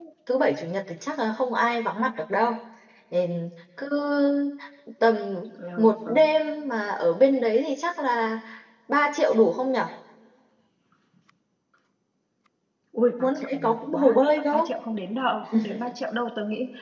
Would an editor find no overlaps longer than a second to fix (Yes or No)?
No